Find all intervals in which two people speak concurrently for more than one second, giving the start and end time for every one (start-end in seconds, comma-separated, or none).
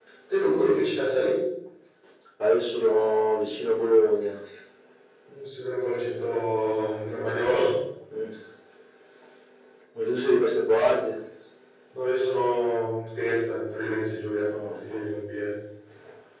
none